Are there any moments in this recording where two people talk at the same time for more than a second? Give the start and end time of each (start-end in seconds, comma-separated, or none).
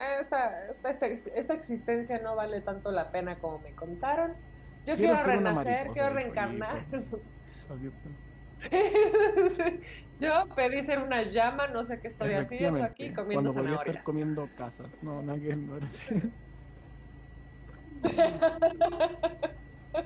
5.0-6.8, 12.2-14.0